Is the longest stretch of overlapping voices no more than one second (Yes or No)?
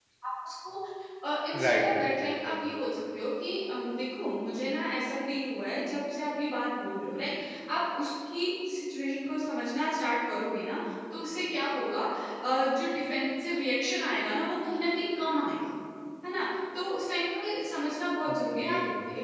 No